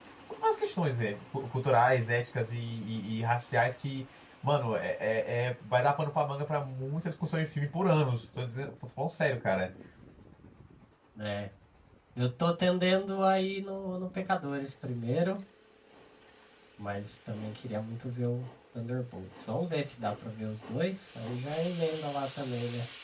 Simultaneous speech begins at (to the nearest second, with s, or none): none